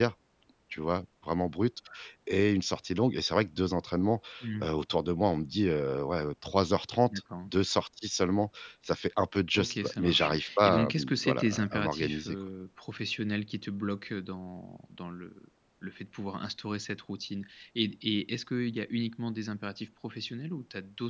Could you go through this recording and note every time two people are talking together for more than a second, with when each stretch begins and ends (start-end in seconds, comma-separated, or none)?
9.6-12.3